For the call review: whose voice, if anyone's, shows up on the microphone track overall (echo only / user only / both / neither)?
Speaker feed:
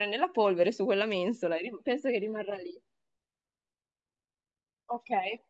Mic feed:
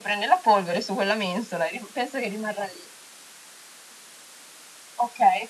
echo only